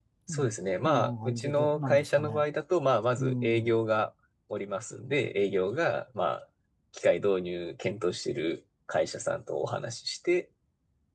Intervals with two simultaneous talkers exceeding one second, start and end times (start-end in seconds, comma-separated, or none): 0.8-2.5